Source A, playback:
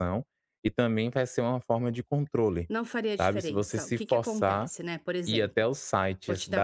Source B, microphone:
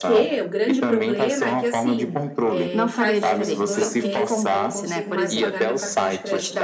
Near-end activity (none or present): present